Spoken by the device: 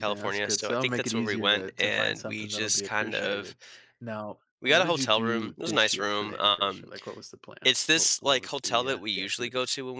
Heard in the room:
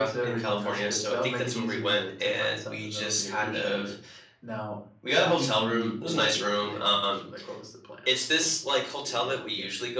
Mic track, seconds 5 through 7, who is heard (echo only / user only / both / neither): echo only